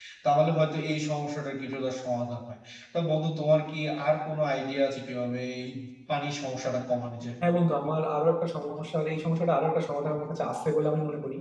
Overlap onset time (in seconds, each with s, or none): none